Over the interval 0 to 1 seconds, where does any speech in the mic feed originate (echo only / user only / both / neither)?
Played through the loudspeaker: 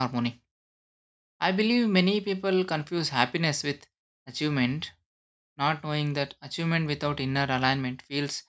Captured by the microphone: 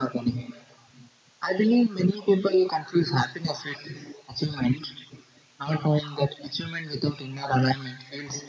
echo only